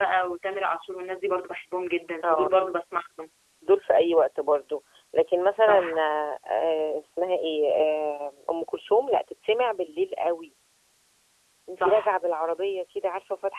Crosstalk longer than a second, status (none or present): none